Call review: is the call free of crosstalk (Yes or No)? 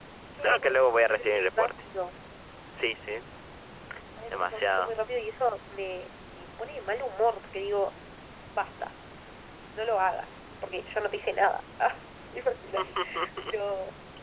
No